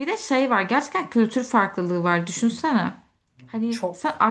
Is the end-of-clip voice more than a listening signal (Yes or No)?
No